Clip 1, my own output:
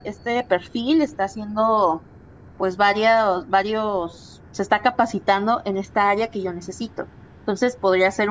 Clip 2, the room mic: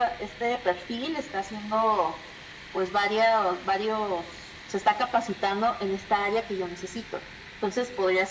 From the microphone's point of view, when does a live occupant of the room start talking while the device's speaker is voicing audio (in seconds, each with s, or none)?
none